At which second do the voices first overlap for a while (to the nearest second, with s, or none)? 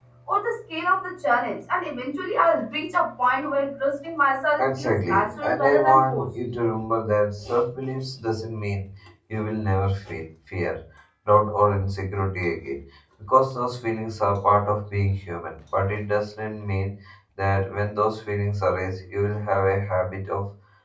5 s